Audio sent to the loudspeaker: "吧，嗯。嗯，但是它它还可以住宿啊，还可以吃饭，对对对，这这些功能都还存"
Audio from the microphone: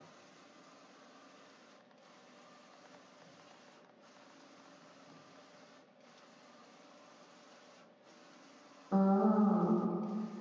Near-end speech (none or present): present